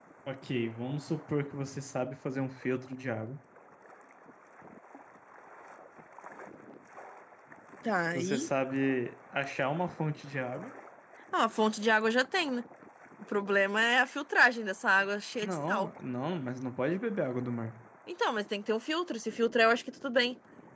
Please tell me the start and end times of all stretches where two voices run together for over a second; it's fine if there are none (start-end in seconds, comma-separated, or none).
none